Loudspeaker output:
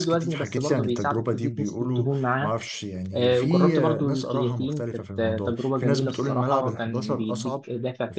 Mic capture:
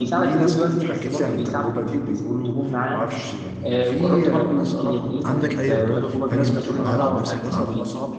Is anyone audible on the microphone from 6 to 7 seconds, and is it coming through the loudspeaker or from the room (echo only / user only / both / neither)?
both